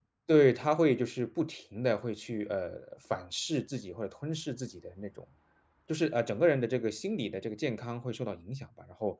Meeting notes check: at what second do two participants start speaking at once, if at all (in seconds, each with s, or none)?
none